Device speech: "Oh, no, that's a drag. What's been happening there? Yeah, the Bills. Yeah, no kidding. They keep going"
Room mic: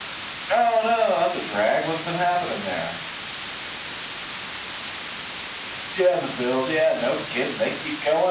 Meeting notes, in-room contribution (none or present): none